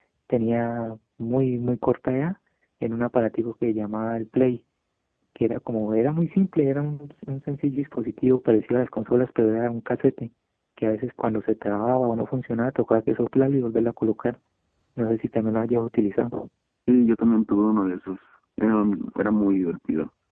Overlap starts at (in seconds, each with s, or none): none